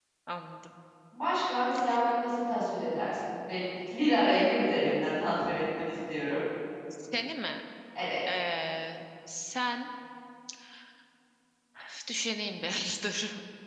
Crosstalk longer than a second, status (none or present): none